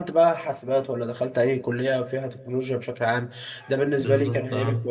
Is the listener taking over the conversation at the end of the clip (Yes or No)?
No